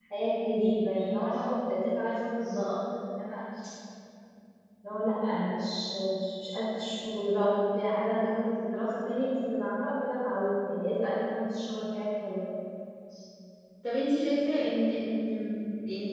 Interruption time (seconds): none

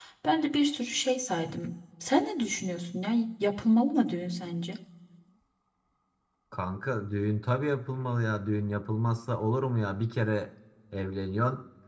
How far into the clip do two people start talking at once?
none

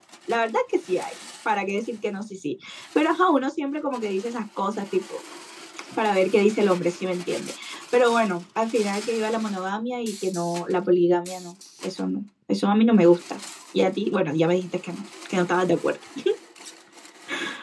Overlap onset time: none

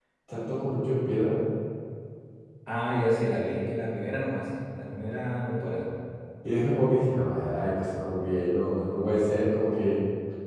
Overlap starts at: none

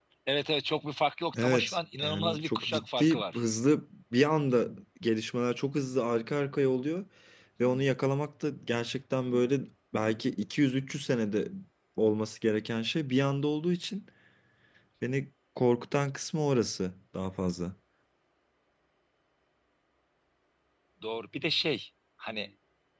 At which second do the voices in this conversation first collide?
1.3 s

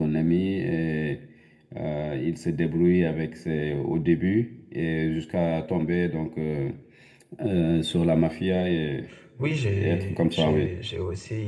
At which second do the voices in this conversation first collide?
9.4 s

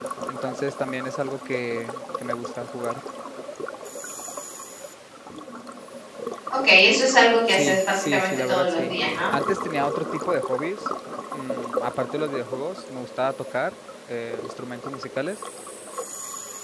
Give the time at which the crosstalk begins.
7.5 s

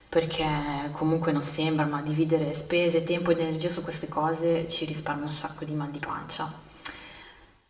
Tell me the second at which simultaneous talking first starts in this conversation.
none

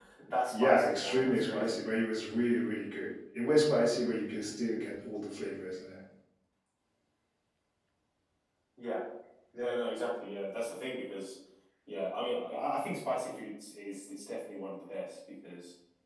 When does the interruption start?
0.5 s

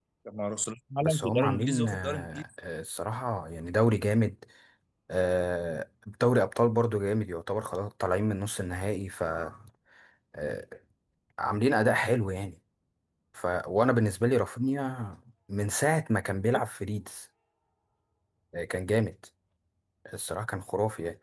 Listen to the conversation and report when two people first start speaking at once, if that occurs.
1.0 s

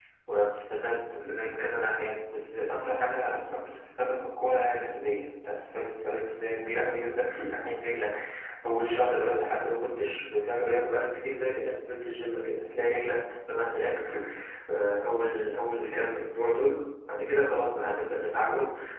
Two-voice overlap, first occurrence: none

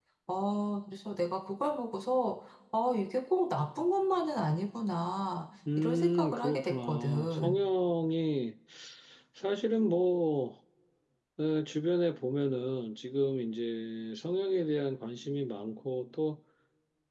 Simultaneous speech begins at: 5.7 s

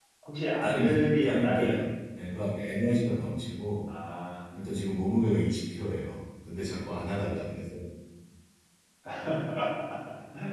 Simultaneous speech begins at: 0.6 s

